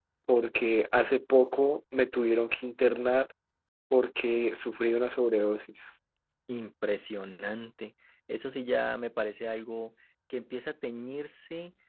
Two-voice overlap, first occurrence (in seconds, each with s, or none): none